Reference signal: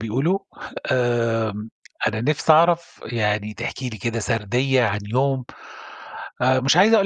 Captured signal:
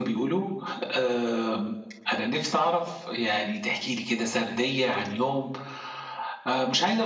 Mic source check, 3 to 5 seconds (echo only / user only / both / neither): echo only